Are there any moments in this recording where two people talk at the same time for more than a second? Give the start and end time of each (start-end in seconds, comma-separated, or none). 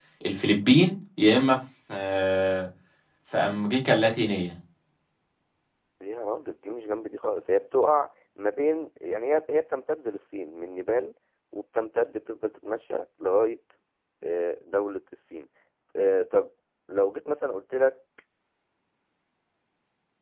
none